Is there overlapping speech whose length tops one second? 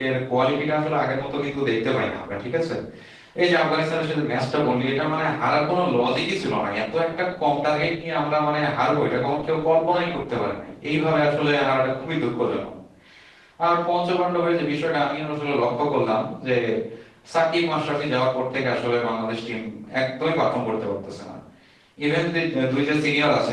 No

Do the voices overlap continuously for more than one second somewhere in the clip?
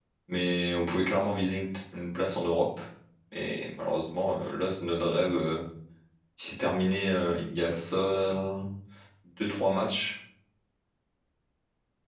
No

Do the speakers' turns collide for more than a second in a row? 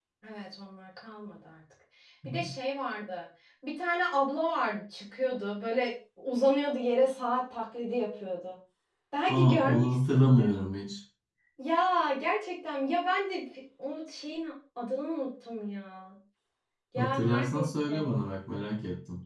Yes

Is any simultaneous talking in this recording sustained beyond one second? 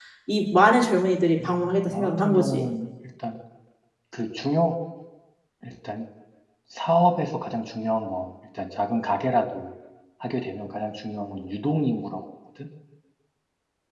Yes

